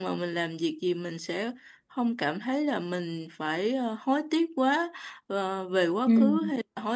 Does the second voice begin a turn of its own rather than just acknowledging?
No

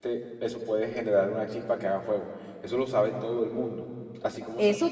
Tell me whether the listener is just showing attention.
No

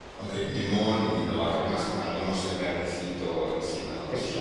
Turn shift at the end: Yes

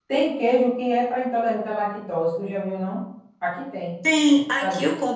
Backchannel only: No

